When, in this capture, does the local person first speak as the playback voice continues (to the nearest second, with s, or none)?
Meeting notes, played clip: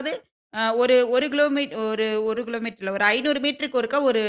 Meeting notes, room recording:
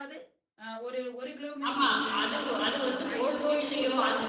2 s